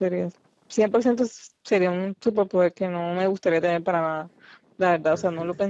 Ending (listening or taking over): listening